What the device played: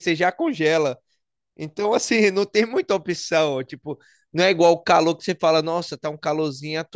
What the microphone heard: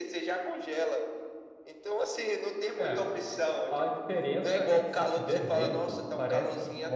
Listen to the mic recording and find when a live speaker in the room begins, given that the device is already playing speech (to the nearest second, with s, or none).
3 s